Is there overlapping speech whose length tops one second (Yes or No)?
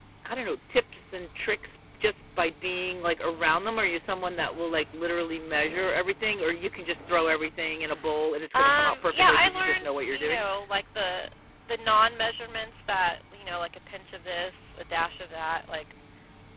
Yes